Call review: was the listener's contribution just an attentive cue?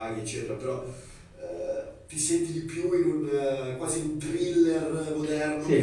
No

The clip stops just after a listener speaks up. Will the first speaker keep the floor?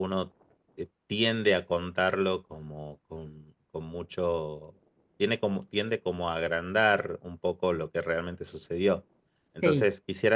Yes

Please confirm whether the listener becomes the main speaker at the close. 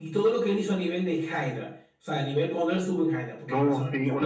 Yes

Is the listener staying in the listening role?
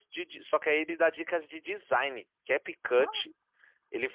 Yes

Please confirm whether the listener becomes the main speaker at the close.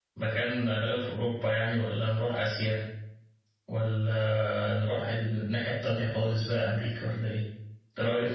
Yes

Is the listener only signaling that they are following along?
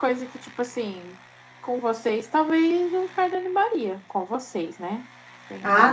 No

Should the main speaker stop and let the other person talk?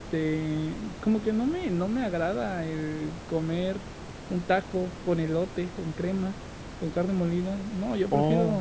Yes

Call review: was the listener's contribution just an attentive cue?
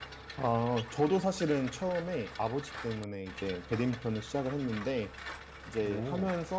Yes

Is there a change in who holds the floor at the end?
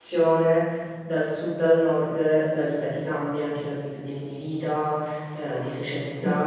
No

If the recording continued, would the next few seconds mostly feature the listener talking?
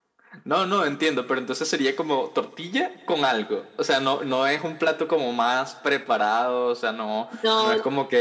No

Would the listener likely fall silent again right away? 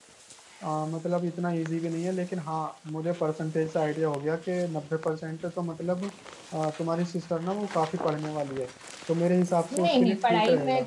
No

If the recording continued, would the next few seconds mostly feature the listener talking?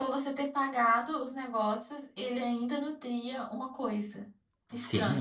Yes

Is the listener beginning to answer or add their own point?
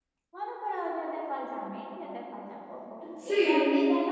No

